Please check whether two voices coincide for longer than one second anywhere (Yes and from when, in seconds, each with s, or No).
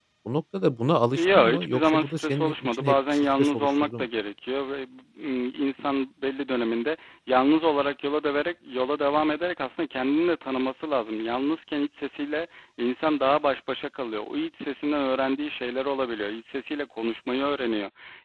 Yes, from 1.2 s